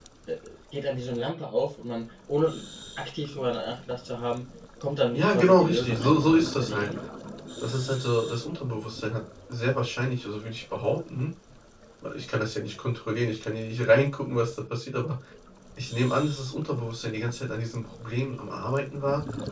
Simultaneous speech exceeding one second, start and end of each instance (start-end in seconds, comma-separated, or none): 5.1-6.9